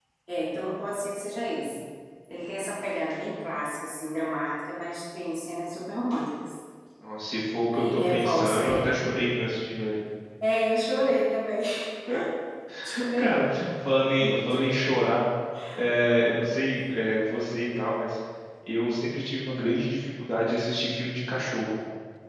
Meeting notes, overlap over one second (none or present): present